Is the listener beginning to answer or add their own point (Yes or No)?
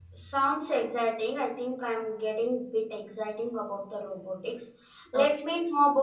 No